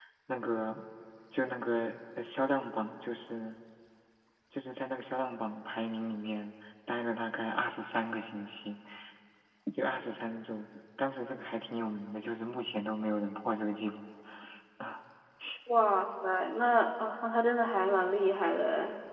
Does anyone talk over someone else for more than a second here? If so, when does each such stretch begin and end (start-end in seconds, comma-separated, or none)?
none